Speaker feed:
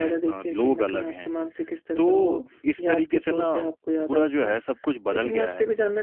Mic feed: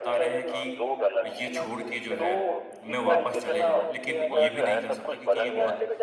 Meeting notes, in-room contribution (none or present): present